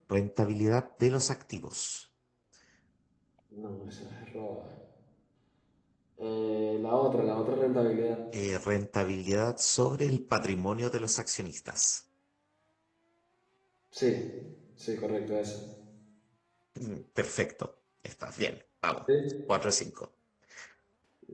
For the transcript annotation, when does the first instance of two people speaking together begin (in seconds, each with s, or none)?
none